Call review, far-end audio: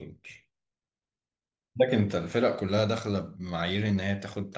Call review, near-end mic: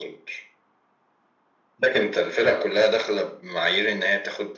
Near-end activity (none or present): none